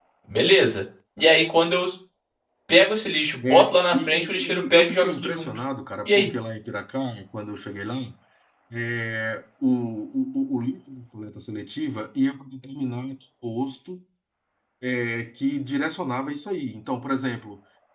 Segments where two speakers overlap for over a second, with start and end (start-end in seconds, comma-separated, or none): 3.4-5.5